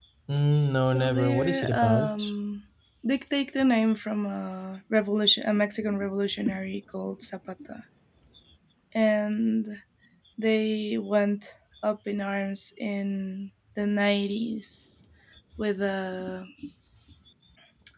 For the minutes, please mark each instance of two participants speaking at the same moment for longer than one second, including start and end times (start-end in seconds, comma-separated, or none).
0.8-2.3